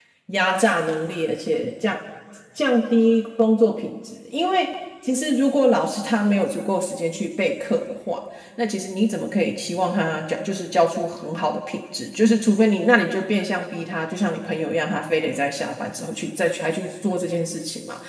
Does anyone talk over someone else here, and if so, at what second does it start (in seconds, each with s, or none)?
none